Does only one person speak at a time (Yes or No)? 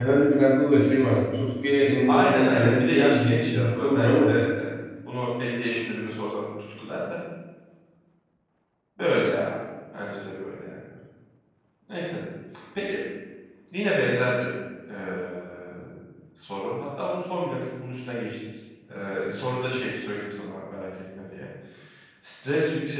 No